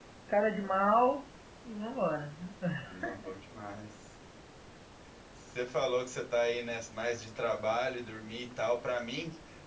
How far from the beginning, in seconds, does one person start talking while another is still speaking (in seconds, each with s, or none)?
none